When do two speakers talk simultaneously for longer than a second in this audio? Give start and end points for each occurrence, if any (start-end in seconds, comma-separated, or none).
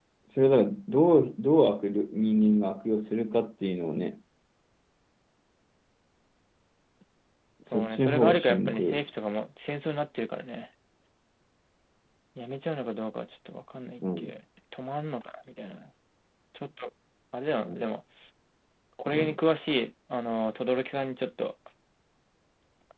7.7-9.0